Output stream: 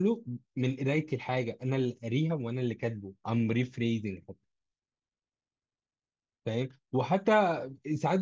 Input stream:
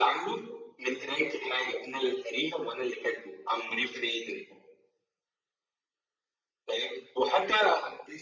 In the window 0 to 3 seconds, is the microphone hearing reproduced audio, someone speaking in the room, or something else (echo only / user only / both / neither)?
echo only